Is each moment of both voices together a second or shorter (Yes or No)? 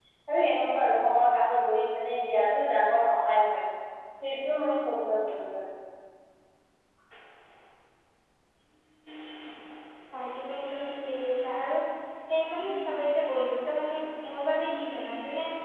Yes